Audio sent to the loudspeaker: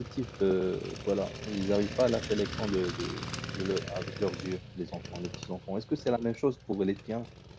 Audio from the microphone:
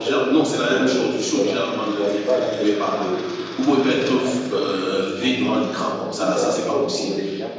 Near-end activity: present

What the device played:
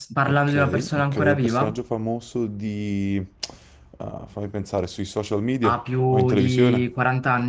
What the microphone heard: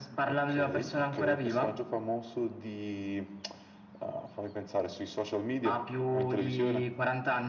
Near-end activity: none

